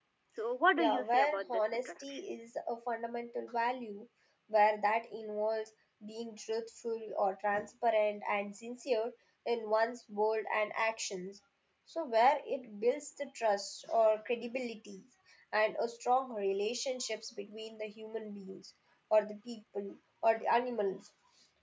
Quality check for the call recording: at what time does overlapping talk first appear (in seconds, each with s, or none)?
0.8 s